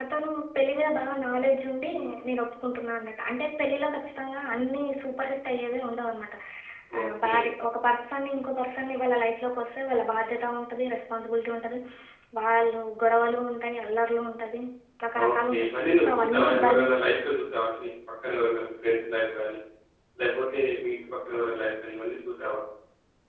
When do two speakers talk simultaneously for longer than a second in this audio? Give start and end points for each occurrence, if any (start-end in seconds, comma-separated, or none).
15.3-16.8